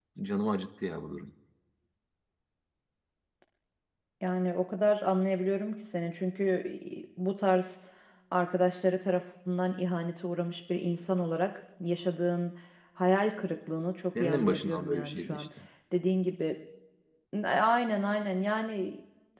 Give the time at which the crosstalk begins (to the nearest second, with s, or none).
14 s